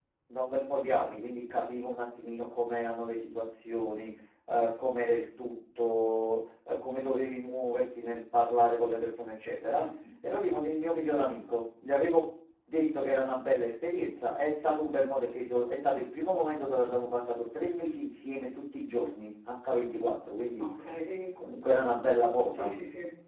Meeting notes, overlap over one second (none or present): none